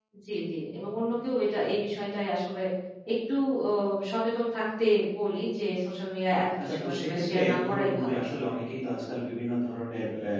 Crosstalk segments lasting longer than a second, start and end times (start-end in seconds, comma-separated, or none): 6.6-8.2